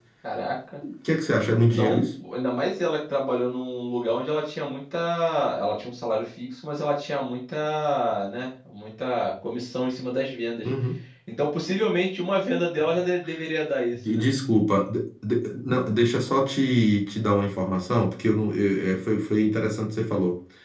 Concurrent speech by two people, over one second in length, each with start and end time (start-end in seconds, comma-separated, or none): none